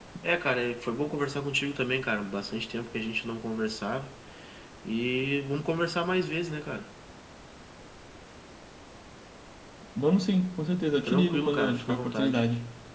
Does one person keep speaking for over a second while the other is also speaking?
Yes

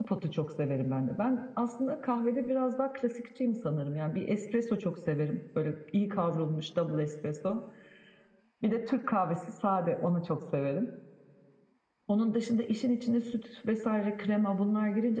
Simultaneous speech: No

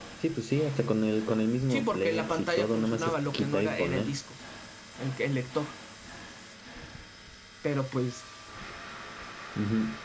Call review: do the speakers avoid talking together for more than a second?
No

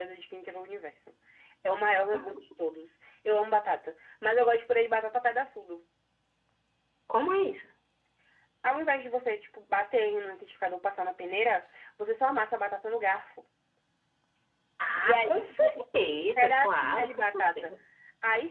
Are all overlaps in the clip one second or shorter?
No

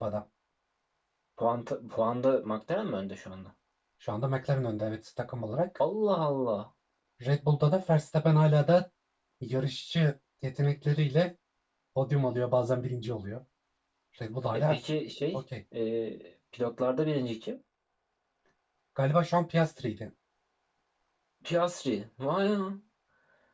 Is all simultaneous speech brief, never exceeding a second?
Yes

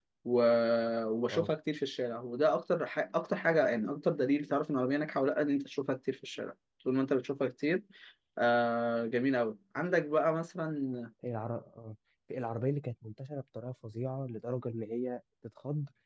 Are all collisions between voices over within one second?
Yes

